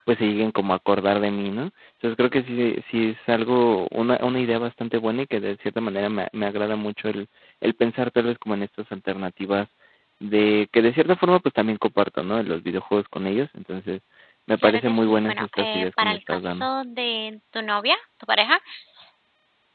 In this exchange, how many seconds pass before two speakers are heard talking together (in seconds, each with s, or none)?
14.6 s